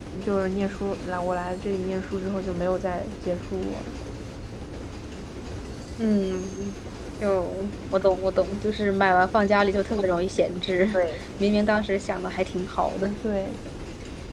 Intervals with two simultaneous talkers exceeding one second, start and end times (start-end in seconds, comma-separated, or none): none